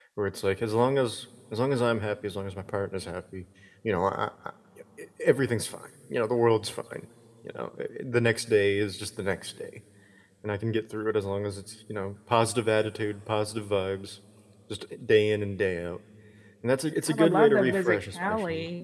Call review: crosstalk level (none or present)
present